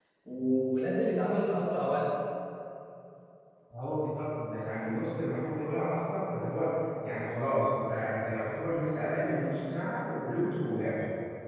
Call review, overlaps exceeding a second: none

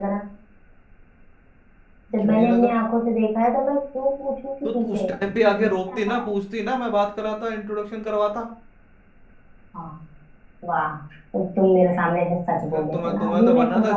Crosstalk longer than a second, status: present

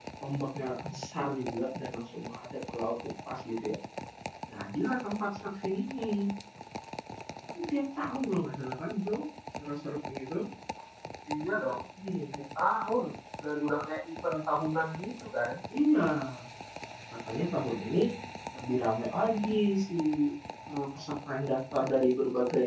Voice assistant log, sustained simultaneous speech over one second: none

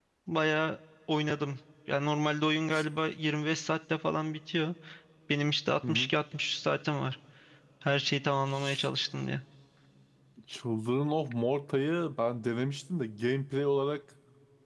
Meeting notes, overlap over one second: none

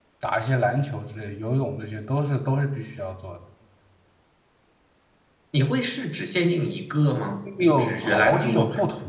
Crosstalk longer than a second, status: present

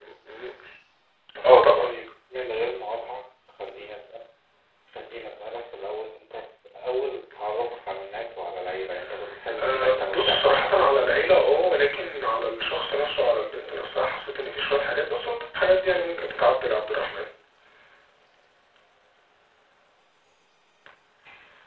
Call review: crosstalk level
present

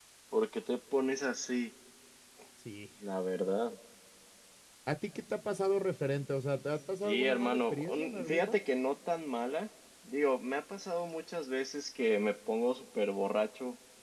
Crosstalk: present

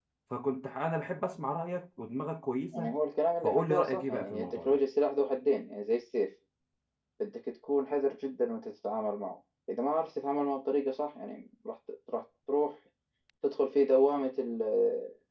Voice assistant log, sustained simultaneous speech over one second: present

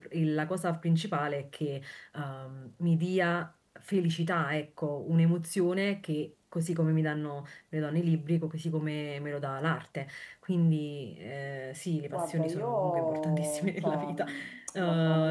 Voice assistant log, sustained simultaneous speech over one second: present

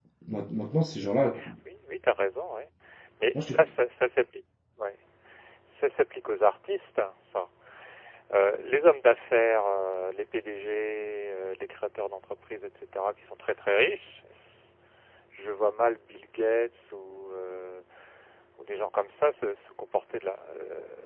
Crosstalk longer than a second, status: none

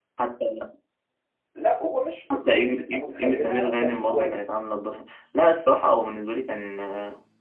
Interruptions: present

